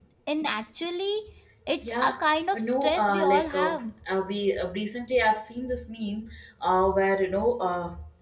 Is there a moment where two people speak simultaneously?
Yes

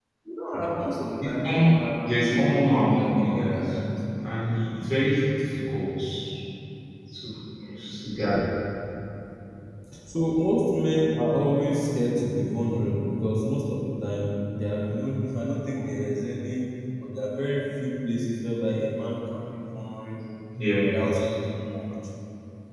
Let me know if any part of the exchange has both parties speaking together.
Yes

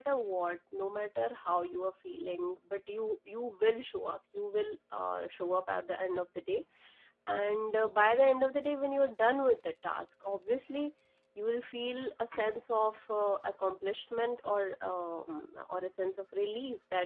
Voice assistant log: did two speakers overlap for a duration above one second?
No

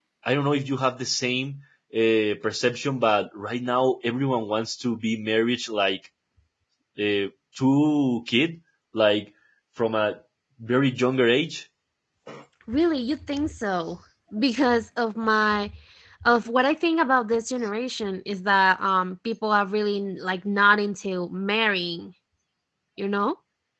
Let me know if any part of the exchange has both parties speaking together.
No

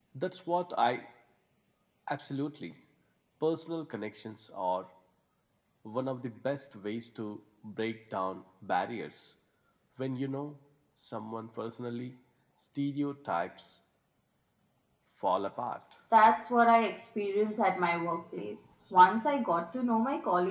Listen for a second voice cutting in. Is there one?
No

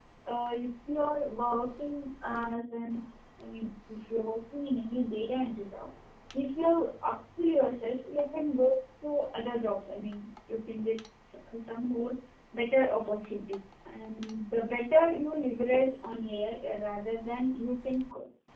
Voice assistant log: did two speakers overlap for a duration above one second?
No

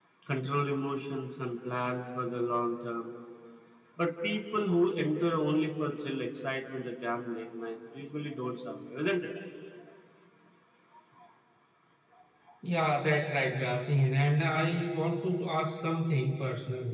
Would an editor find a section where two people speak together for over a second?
No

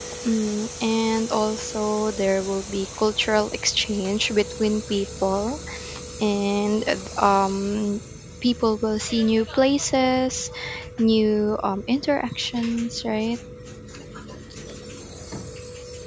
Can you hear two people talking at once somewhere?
No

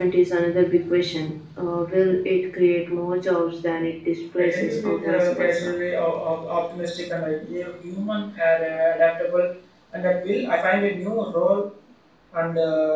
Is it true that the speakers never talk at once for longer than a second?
No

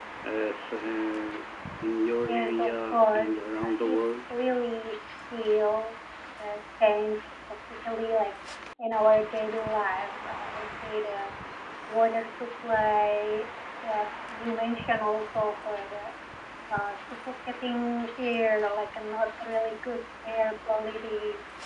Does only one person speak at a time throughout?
No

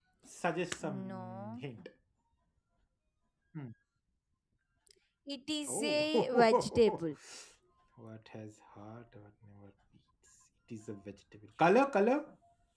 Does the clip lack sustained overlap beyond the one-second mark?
No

